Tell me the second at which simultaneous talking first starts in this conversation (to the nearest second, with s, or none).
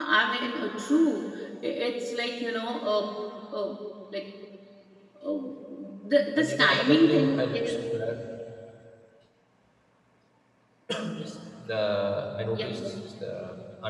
6 s